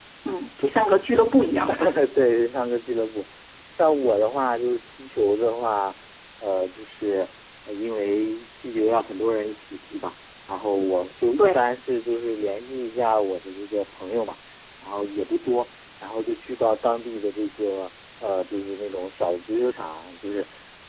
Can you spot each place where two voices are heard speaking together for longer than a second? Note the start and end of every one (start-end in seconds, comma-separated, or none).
none